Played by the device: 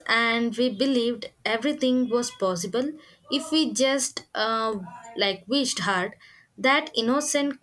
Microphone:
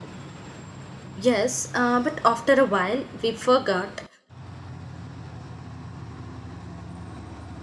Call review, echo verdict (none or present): none